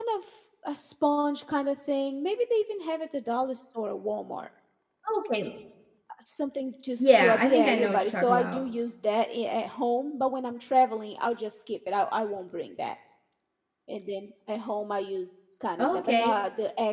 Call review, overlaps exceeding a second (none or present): present